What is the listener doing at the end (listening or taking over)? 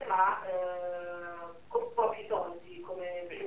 taking over